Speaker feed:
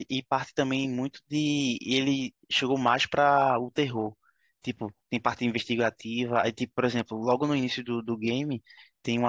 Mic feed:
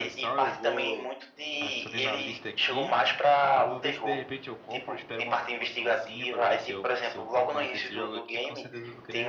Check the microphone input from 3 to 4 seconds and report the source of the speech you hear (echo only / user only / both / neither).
both